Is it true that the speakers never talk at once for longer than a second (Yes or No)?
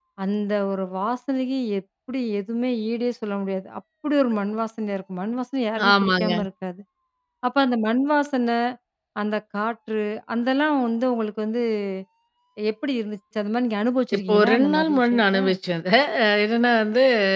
No